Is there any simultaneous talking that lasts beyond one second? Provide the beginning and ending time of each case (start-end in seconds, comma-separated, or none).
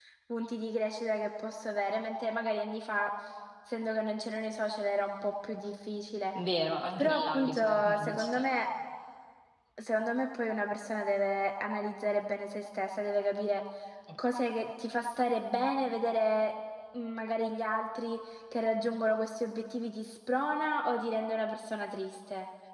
7.0-8.5